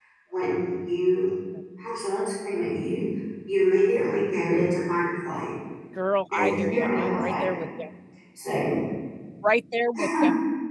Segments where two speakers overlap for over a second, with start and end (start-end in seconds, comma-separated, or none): 6.3-7.6